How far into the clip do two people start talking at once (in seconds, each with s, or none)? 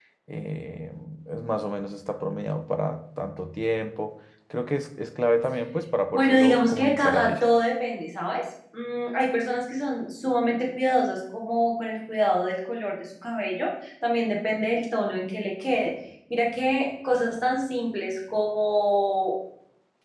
6.1 s